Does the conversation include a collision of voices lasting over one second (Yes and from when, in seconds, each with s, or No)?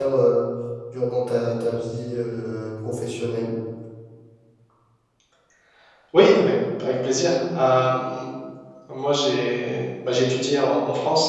No